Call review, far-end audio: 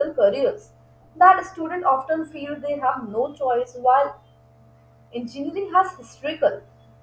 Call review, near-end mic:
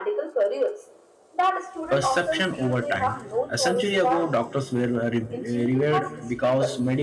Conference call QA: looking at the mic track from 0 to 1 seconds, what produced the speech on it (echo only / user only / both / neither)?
echo only